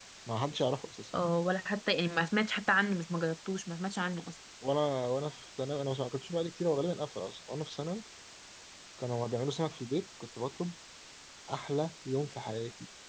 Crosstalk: none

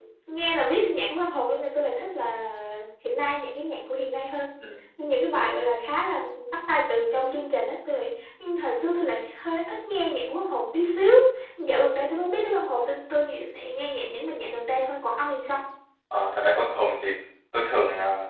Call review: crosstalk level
none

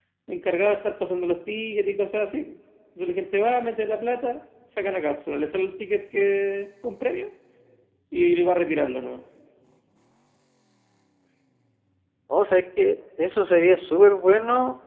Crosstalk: none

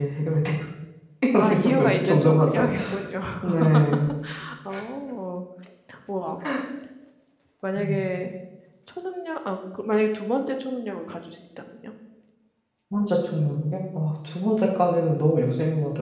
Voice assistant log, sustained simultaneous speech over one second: present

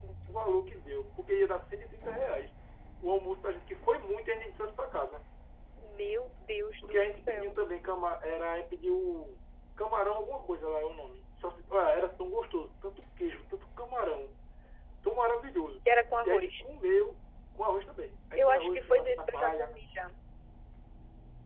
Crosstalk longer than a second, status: present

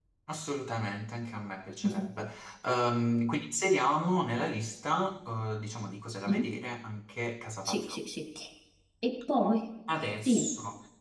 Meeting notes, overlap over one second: none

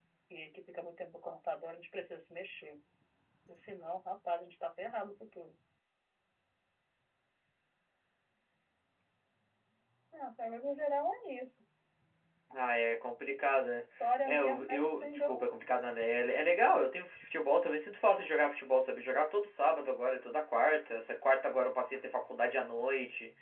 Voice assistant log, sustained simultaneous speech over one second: present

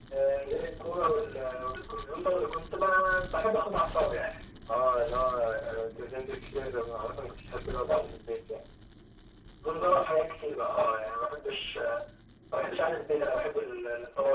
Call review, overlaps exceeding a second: none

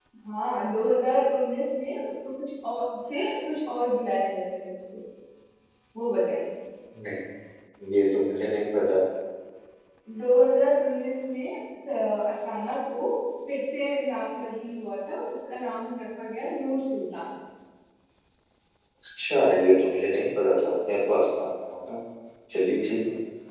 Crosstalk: none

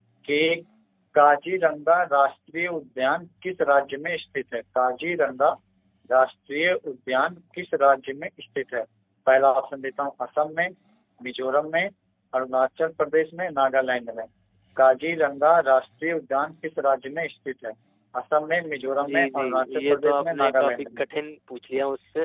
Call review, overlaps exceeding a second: present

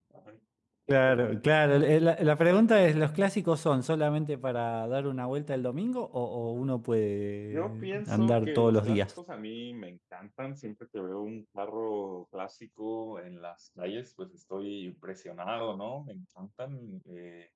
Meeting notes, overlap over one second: present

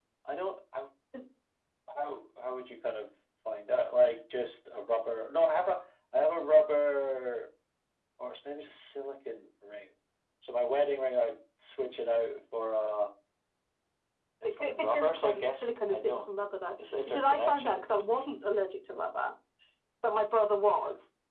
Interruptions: present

